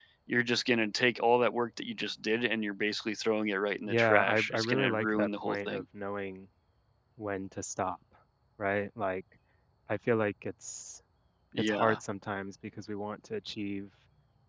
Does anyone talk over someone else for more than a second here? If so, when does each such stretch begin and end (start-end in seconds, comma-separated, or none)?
3.9-5.8